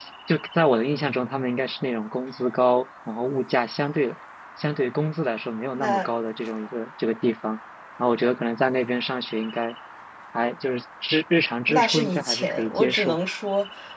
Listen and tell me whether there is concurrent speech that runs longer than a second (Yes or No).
Yes